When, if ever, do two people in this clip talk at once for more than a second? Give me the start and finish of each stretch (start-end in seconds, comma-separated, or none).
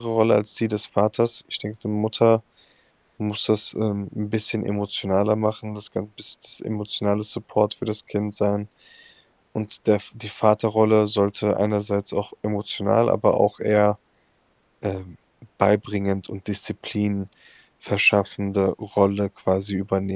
none